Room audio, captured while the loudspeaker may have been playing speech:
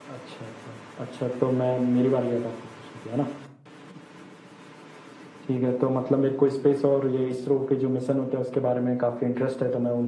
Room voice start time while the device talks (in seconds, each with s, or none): none